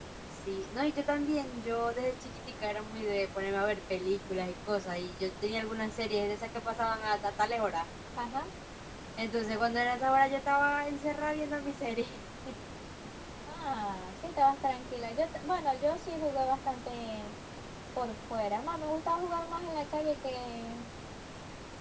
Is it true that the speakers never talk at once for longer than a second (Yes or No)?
Yes